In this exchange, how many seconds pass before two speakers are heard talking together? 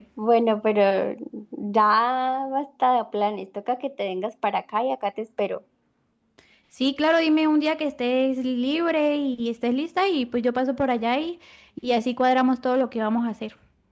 none

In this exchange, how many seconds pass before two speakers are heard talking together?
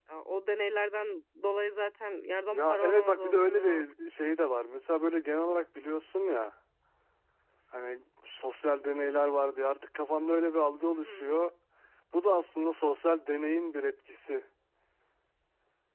2.5 s

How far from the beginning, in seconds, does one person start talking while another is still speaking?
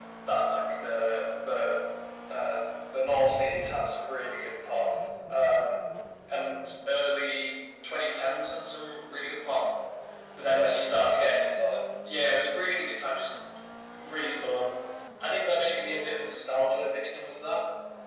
10.4 s

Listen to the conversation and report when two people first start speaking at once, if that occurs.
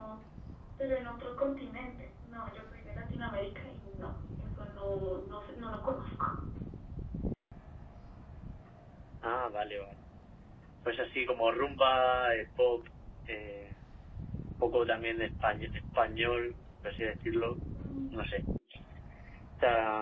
none

